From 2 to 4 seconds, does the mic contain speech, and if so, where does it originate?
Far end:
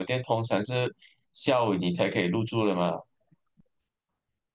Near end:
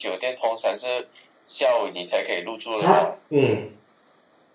both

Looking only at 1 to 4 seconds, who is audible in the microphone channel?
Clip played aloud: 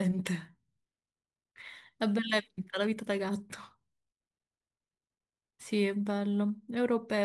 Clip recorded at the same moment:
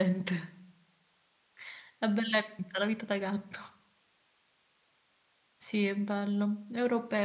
echo only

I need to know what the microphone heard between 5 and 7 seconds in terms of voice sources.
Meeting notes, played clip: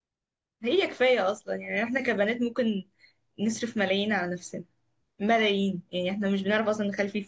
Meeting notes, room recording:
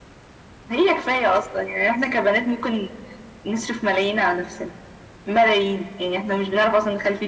echo only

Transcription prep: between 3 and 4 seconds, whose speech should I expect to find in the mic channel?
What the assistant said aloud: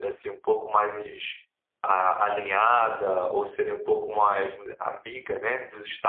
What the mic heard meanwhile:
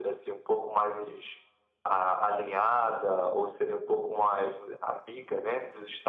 echo only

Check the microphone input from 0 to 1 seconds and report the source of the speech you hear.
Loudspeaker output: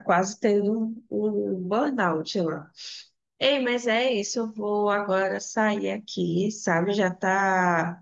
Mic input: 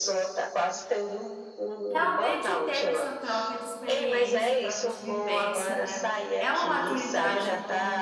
echo only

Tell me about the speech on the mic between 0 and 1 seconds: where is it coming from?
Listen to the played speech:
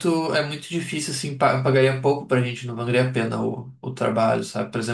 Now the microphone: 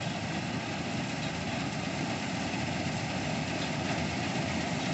neither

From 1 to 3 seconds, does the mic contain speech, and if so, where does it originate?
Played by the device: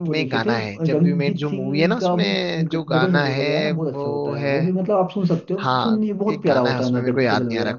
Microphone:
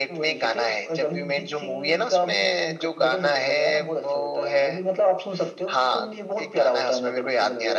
echo only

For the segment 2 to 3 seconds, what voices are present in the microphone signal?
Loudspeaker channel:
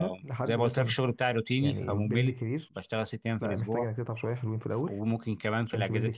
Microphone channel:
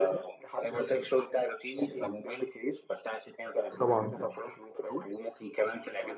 echo only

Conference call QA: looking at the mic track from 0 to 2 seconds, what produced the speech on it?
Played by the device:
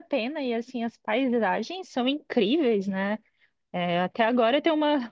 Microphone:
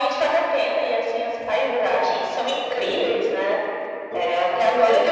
echo only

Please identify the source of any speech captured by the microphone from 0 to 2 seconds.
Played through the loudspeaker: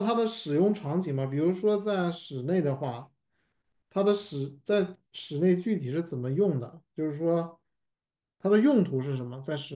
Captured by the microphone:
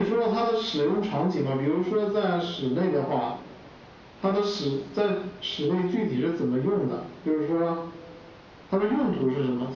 echo only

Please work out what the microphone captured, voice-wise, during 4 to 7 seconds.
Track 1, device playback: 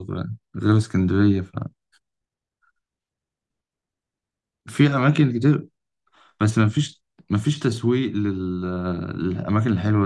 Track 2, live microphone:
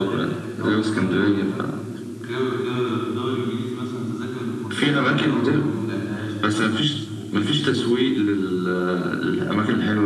both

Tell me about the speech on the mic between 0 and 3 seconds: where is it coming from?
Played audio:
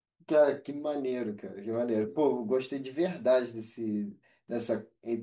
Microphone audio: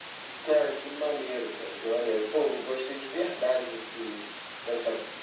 echo only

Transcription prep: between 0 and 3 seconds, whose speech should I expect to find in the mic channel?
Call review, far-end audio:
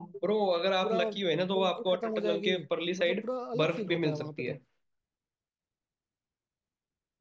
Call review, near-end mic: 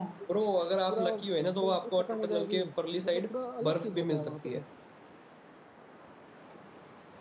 echo only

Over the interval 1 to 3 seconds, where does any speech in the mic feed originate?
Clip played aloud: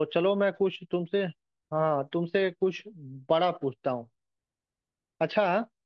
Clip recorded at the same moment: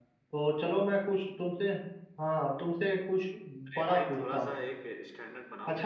echo only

